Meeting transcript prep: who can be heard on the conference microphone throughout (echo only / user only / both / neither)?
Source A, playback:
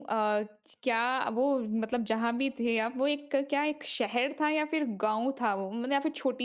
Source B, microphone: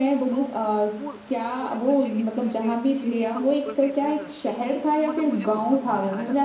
both